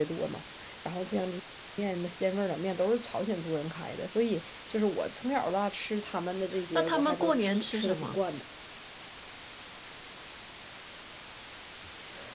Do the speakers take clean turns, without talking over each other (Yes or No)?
No